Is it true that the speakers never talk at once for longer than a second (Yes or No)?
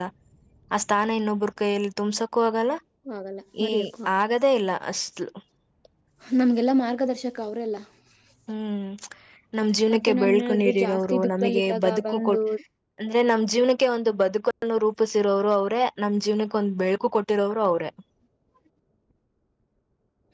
No